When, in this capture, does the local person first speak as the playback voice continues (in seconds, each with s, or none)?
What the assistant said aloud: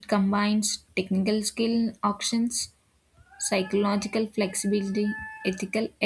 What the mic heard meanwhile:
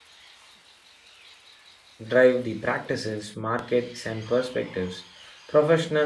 2.1 s